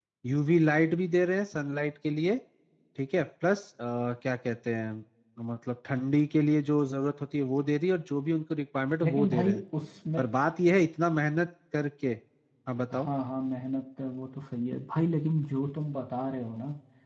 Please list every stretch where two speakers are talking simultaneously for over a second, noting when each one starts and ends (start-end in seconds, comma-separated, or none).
none